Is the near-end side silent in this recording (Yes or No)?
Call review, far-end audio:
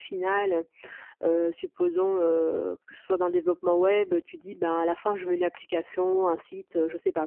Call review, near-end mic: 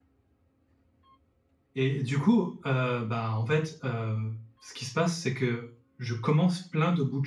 No